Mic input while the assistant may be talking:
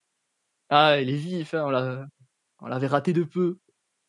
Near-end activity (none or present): present